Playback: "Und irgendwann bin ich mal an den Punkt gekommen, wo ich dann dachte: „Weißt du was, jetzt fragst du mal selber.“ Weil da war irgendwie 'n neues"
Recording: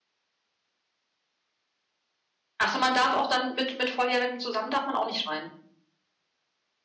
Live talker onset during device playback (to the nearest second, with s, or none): 3 s